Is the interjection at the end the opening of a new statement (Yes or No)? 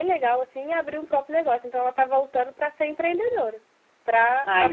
No